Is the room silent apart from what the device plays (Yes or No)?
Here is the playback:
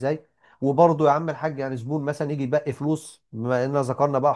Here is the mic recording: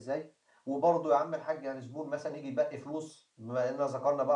Yes